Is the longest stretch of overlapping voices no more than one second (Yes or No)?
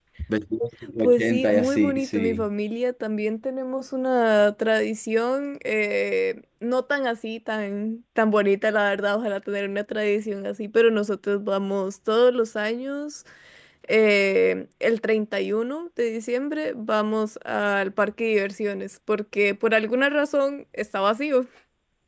No